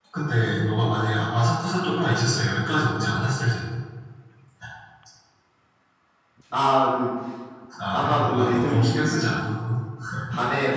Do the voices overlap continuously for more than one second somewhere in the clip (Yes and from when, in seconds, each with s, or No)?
Yes, from 7.9 s